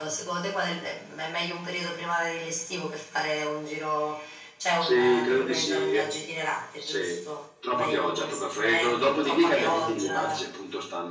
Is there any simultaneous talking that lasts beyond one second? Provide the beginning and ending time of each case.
4.8-6.1, 7.7-10.4

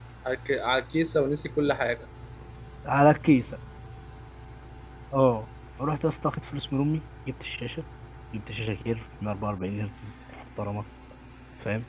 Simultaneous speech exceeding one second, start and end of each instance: none

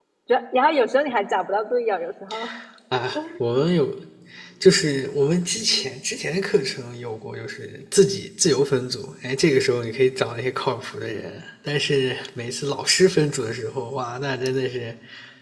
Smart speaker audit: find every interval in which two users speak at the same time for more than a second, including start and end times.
none

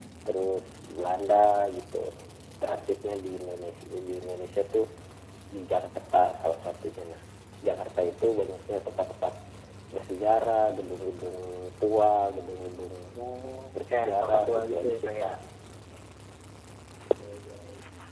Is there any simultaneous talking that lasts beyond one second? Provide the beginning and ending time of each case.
13.9-15.3

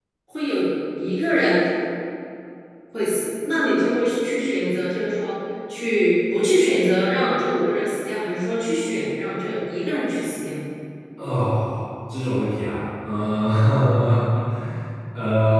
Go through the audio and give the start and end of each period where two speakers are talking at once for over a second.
none

